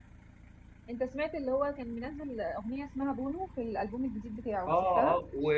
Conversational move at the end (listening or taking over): taking over